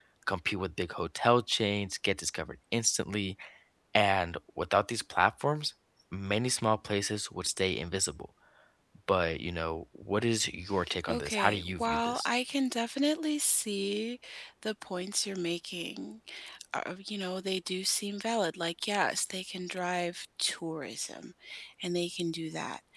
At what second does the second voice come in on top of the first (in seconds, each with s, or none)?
11.1 s